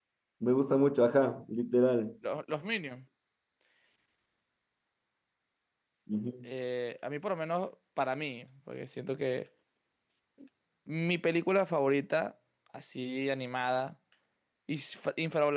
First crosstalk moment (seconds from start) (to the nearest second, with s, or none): none